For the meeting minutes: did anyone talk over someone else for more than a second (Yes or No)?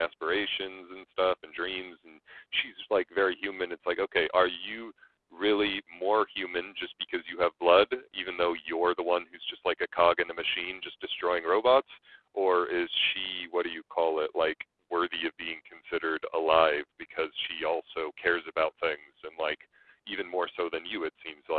No